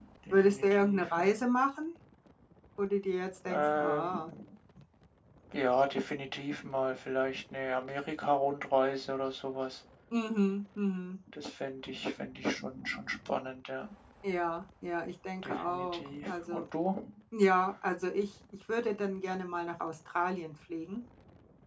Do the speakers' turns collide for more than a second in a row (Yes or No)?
Yes